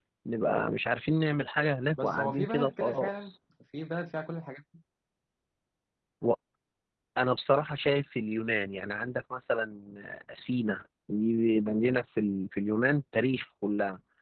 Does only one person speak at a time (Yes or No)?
No